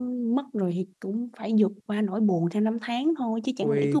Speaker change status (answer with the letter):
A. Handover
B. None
A